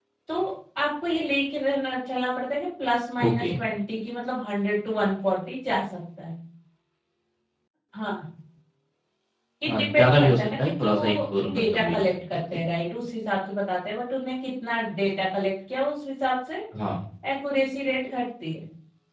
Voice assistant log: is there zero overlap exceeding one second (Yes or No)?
No